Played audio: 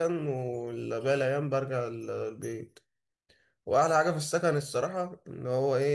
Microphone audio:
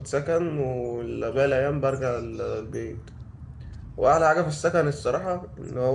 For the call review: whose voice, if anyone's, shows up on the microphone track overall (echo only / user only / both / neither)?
echo only